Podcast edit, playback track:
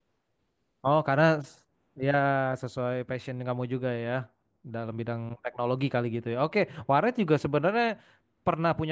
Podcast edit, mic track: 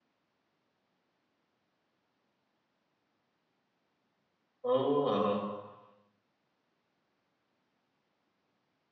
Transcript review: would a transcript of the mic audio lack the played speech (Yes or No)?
Yes